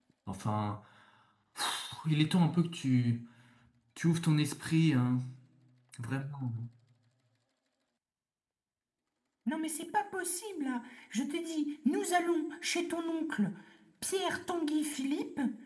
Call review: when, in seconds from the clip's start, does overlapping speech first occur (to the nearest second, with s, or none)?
none